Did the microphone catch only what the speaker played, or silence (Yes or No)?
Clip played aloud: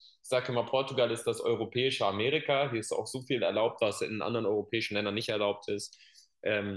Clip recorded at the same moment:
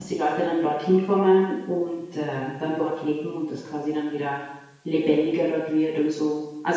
No